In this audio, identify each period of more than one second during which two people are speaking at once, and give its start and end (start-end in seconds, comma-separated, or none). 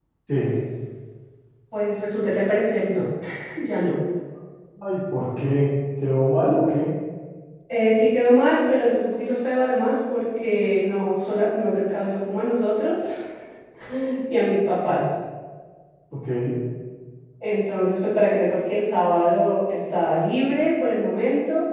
none